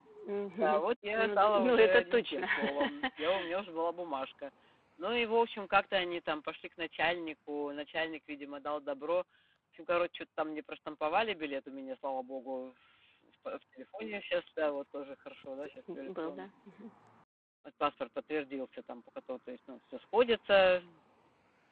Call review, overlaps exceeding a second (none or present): present